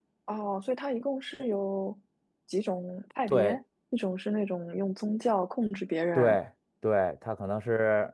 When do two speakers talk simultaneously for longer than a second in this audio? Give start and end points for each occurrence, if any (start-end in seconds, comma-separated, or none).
none